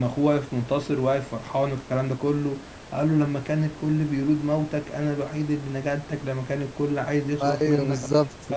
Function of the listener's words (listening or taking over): listening